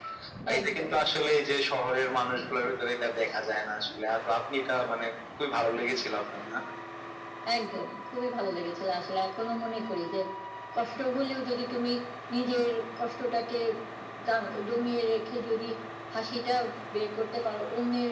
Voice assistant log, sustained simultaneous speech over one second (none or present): none